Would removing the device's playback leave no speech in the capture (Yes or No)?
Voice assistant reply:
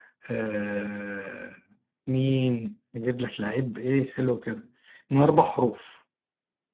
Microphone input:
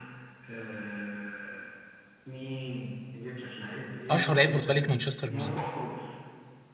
No